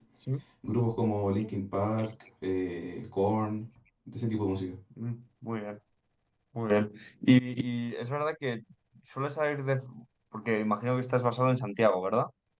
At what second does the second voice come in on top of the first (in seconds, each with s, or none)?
none